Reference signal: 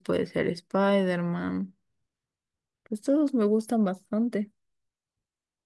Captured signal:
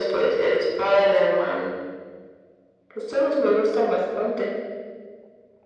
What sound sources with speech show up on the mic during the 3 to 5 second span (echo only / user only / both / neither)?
echo only